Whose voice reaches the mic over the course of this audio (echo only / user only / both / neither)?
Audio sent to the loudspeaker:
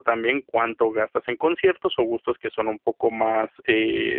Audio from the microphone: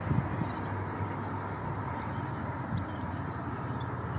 neither